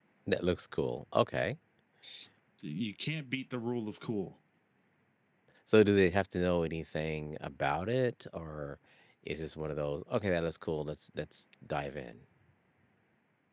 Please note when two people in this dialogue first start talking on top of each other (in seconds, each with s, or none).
none